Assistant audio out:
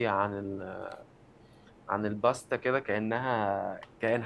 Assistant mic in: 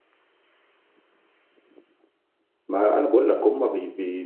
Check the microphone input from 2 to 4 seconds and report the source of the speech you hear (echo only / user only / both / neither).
user only